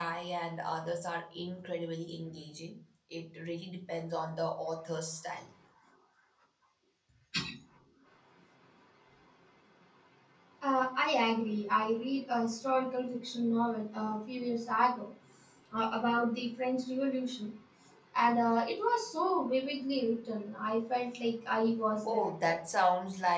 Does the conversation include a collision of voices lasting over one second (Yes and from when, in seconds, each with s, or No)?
No